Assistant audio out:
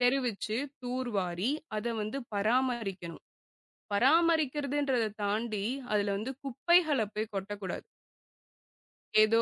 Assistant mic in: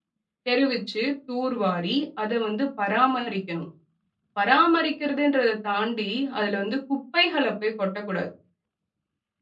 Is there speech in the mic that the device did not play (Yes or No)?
No